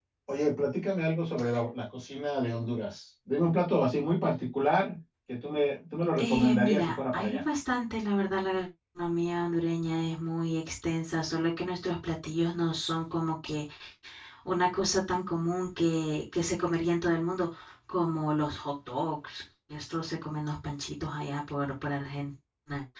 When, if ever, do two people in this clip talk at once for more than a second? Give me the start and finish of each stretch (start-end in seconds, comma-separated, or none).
6.2-7.4